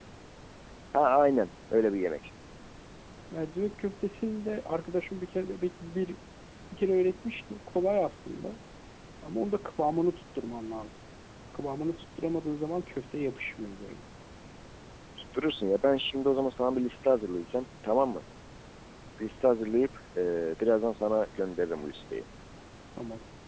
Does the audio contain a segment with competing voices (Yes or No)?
No